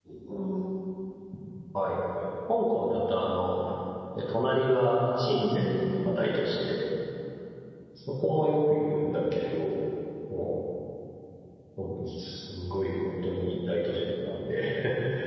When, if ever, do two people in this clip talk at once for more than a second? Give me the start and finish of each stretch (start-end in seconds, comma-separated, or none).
5.2-6.4